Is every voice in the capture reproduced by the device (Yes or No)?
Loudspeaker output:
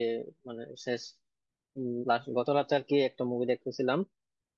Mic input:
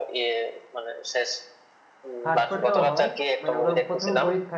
No